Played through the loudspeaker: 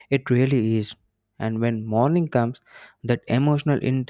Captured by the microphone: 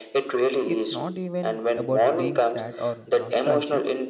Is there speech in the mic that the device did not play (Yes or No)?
Yes